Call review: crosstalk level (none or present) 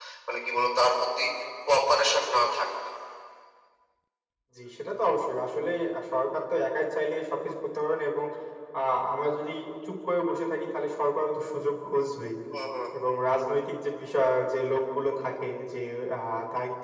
none